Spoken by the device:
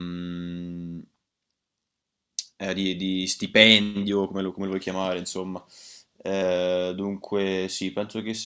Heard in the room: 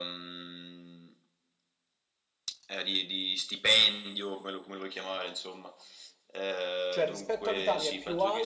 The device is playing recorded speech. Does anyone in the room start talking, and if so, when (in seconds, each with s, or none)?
6.9 s